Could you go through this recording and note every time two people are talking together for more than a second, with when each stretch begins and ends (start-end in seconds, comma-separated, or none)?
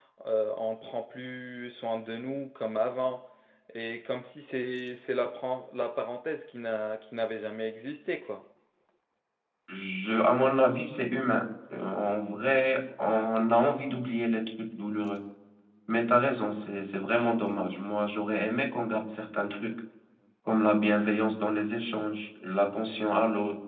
none